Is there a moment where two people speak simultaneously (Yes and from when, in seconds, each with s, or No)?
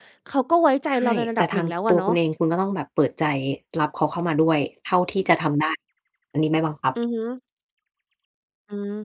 Yes, from 0.9 s